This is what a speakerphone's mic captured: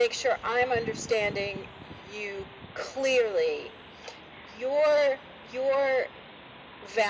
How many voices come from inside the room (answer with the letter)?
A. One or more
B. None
B